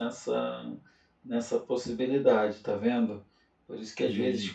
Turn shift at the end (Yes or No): No